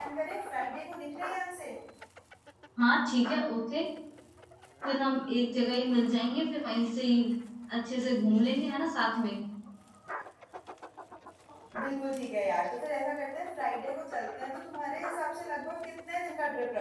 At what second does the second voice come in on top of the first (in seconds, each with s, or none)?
none